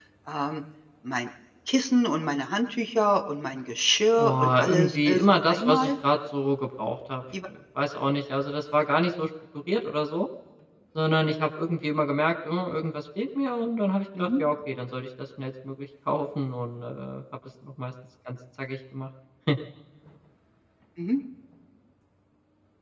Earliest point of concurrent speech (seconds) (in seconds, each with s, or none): 4.2 s